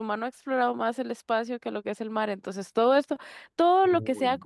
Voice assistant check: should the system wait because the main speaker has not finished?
Yes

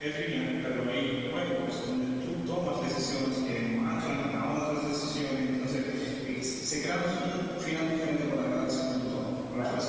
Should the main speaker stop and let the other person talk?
No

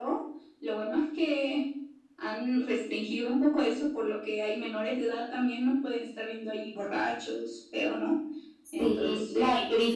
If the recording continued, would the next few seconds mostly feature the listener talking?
Yes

